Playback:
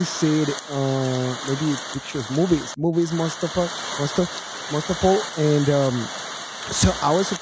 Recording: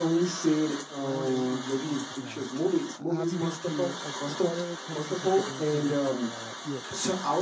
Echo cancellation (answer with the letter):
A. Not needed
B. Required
B